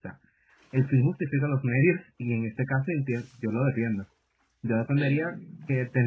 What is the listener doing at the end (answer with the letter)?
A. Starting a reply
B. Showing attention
B